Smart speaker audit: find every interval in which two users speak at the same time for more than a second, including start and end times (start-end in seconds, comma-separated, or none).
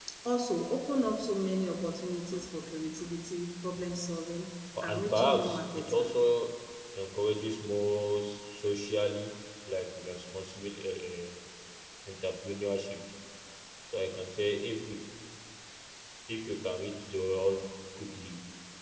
4.8-6.1